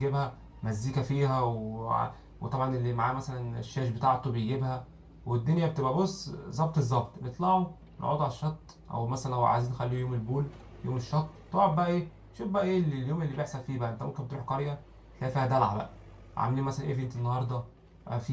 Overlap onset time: none

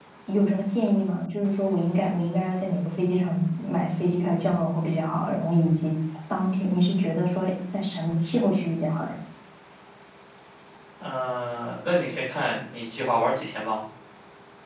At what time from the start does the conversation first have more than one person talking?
none

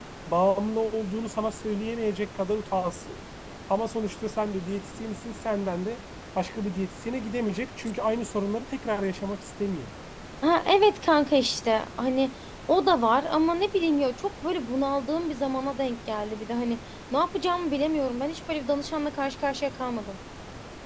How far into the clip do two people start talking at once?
none

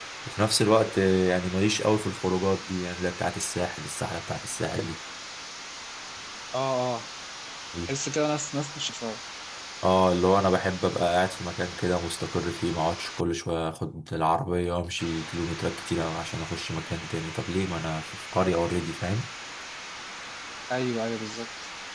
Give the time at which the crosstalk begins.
none

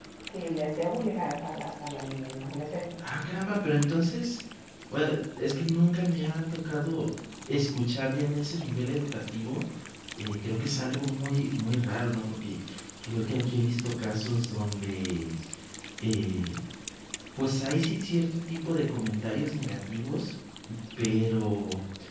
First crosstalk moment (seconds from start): none

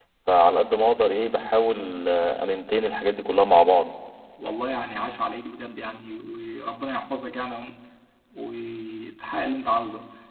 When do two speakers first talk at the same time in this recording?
none

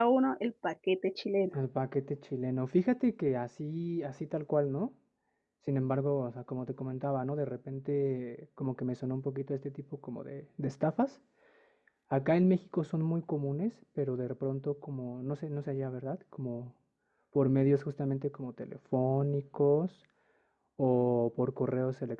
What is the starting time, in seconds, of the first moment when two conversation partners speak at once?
none

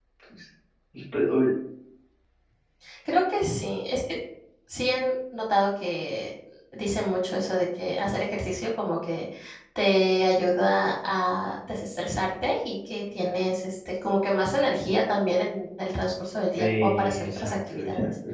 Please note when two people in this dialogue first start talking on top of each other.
16.5 s

